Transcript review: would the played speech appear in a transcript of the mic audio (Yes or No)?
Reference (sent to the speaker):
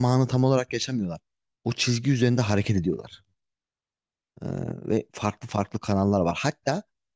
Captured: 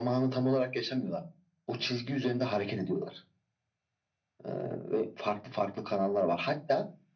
Yes